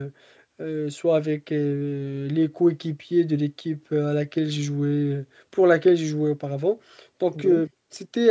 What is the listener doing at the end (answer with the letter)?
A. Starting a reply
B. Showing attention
B